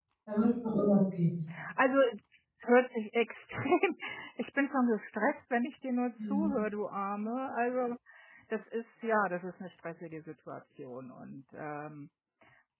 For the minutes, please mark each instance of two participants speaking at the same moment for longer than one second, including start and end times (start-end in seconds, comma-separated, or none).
none